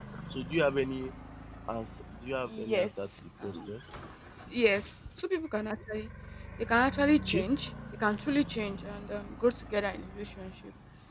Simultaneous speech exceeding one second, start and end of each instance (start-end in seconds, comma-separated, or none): 2.5-3.7